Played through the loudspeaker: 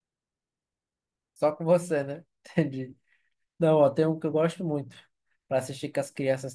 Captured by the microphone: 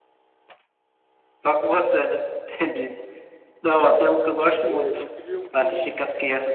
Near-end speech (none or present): present